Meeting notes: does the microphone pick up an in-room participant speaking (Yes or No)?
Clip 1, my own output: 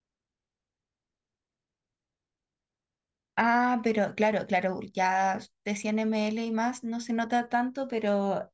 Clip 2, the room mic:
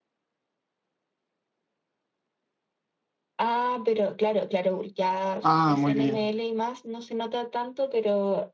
Yes